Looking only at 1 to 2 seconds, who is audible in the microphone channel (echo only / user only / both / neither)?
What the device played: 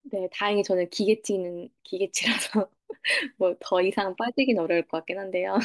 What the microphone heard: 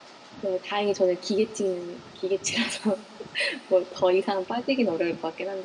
echo only